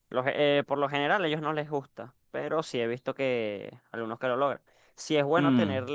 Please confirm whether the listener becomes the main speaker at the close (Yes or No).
No